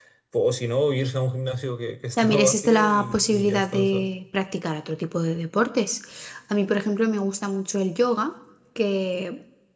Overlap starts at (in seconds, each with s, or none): 2.2 s